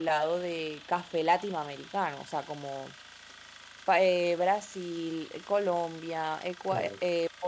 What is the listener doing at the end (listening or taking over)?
listening